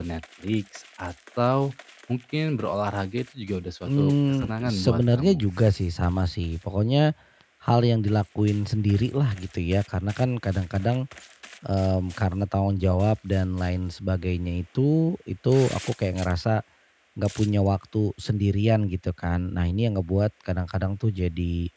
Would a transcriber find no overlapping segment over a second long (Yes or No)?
No